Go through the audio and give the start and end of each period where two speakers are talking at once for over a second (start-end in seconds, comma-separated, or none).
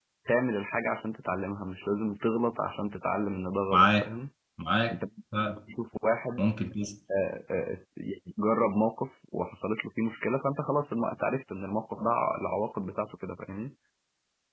none